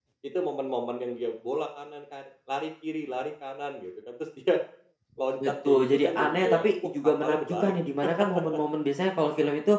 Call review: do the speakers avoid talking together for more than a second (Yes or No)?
No